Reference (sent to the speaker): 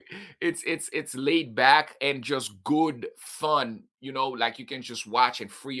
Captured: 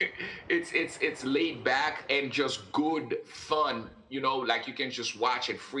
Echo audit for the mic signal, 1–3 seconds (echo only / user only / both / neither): echo only